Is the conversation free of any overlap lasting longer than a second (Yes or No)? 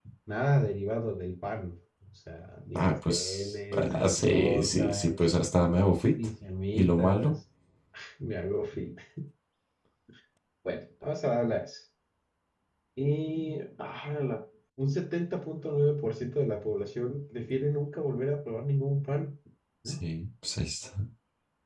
No